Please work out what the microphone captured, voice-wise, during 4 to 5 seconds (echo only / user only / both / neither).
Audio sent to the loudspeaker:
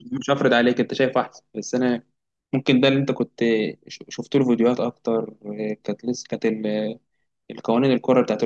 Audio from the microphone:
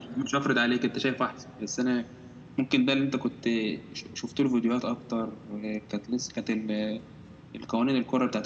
echo only